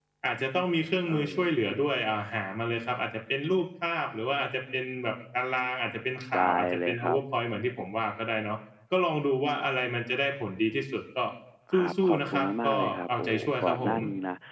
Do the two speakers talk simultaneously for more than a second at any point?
Yes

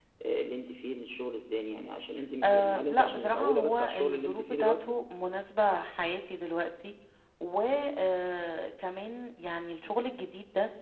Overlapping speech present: Yes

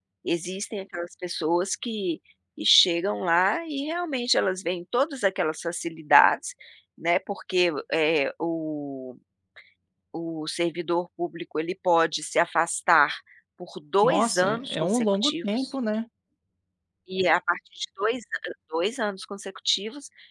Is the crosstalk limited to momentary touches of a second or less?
No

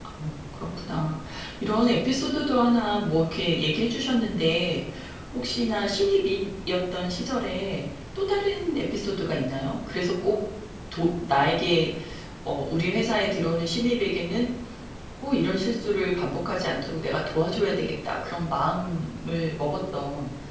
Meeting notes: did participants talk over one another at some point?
No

